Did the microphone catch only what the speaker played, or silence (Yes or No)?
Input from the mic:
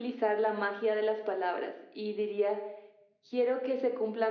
Yes